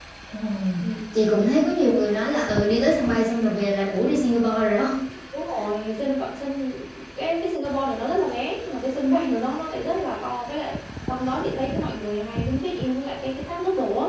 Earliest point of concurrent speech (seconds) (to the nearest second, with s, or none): none